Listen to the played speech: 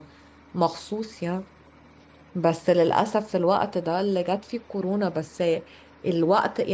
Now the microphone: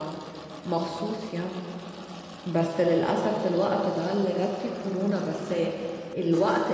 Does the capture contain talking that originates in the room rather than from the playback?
Yes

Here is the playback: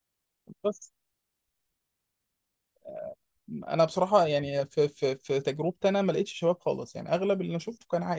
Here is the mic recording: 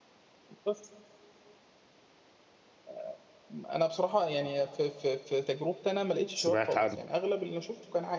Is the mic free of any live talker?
No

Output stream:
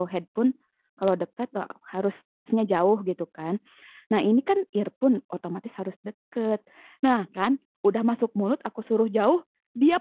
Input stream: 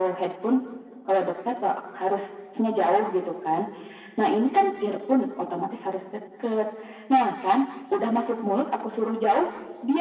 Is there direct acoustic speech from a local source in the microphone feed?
No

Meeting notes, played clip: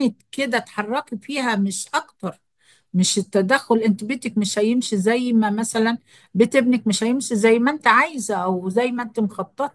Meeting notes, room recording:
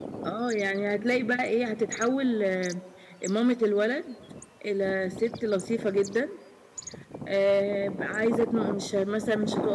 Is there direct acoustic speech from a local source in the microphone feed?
Yes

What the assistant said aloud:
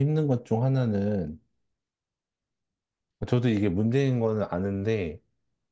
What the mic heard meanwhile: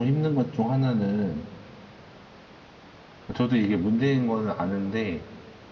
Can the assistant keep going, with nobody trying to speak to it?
Yes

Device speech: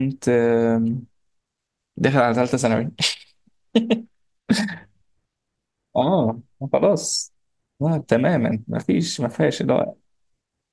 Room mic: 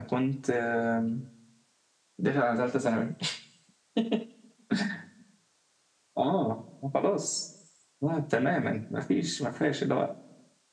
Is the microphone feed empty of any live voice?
Yes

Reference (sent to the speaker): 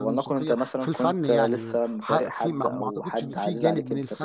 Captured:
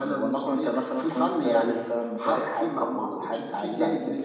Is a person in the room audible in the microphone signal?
No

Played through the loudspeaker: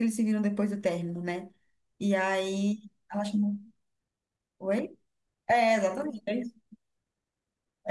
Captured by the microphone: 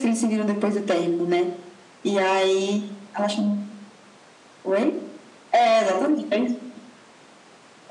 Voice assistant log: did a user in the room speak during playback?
No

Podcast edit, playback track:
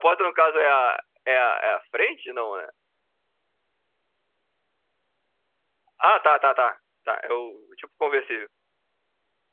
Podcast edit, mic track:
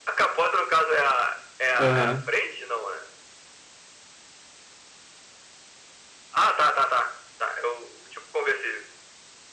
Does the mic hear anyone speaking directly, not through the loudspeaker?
Yes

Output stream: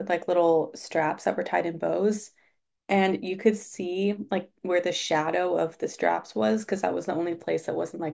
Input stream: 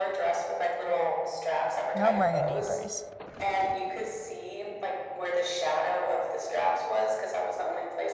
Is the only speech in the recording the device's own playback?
No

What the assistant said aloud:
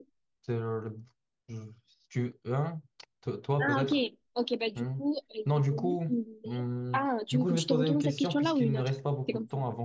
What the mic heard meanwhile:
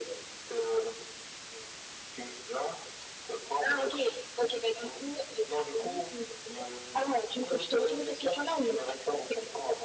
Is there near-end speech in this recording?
No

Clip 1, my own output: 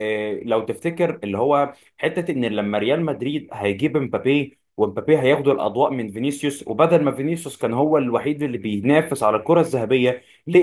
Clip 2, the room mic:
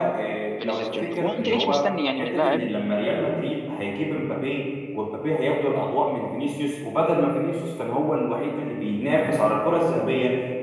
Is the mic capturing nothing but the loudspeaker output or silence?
No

